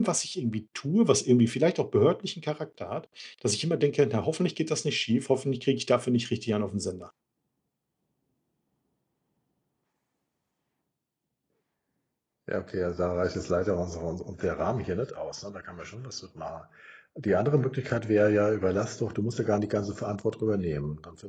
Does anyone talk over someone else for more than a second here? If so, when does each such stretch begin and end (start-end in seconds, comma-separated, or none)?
none